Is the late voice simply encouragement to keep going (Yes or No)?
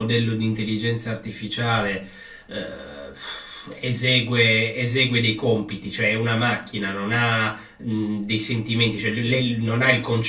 Yes